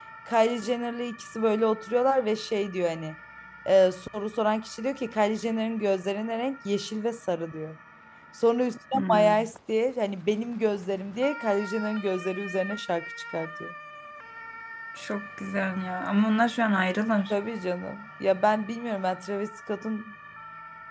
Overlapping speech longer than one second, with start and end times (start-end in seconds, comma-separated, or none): none